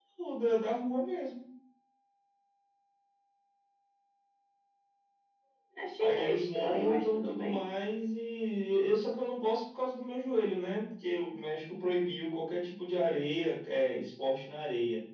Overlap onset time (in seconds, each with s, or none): 6.0 s